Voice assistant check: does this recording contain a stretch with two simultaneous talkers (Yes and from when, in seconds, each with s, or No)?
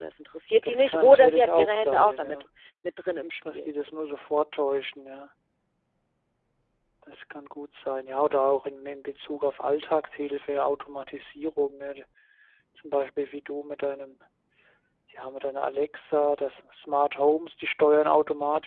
Yes, from 0.6 s